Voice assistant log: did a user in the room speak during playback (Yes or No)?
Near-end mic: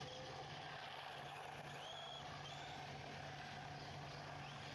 No